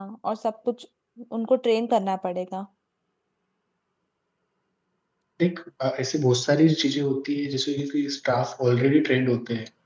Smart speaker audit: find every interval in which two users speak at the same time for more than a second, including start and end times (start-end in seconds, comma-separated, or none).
none